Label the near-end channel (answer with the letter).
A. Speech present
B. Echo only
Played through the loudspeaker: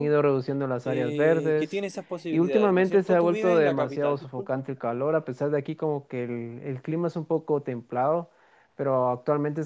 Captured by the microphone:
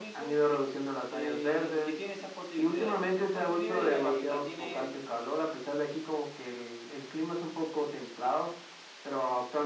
A